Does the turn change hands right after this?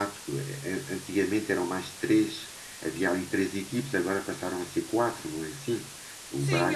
Yes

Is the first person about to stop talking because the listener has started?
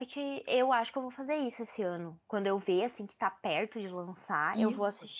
No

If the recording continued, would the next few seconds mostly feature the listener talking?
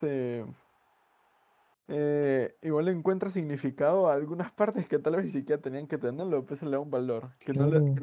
No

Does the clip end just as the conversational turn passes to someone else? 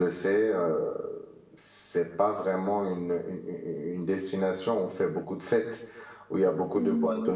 No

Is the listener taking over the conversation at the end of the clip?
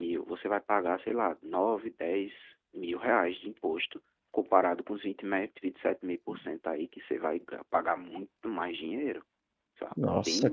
Yes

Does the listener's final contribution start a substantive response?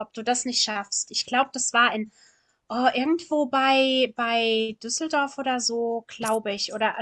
No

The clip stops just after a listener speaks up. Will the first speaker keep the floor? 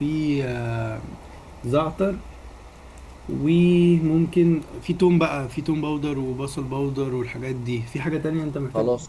No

